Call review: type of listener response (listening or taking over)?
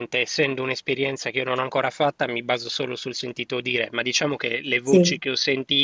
listening